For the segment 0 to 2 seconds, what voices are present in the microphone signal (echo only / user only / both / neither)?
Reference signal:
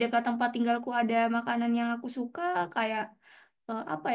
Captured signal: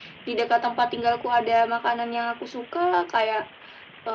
echo only